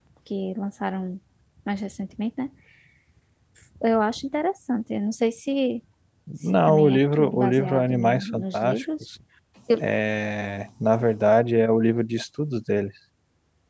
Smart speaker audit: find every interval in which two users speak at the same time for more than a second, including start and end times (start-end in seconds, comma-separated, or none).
6.7-9.1